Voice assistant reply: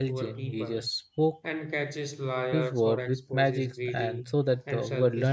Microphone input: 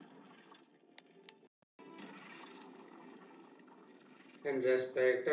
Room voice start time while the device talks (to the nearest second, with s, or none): 4 s